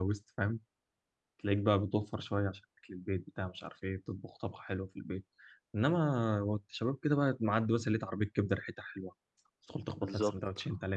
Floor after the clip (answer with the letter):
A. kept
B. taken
B